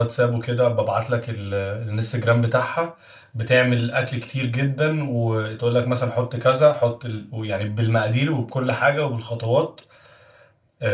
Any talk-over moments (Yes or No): No